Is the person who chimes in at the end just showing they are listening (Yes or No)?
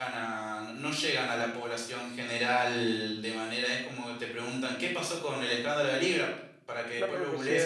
No